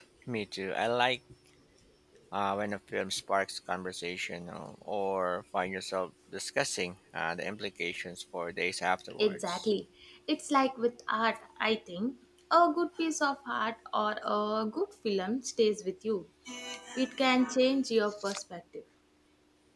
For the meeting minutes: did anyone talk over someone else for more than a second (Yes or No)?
No